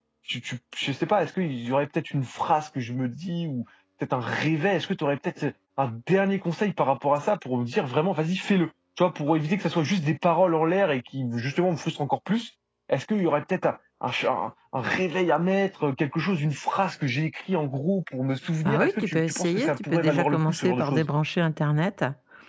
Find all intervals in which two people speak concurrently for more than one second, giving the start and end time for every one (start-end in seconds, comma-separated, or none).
18.6-21.1